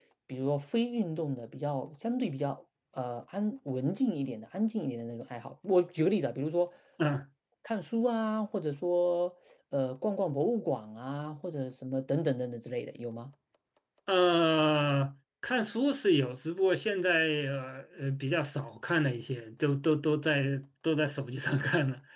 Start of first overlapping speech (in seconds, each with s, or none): none